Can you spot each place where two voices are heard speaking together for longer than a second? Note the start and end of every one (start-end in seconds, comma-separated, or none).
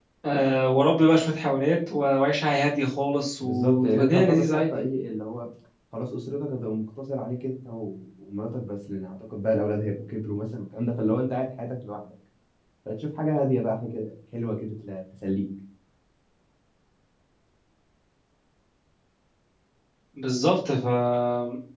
3.4-4.8